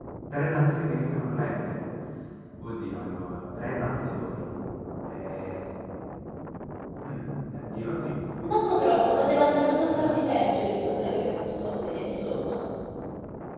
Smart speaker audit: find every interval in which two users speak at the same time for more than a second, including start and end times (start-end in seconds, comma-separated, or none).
9.0-10.2